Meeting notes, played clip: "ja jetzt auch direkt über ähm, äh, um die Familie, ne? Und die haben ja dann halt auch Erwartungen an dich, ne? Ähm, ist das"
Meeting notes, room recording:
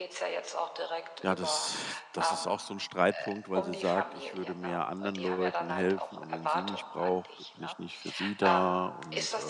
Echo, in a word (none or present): present